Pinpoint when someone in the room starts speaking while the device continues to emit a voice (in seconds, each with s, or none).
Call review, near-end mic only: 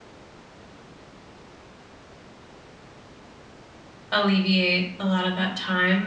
4.1 s